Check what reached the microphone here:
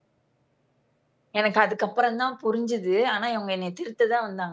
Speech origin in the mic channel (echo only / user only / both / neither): user only